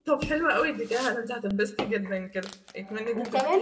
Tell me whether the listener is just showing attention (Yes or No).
No